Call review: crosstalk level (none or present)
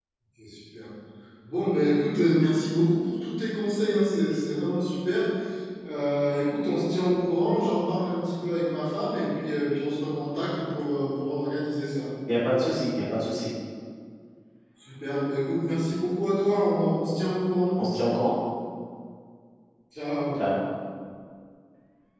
none